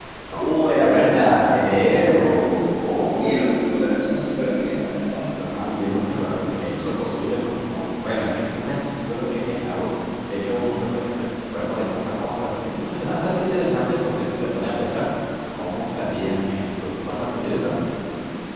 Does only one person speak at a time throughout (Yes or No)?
No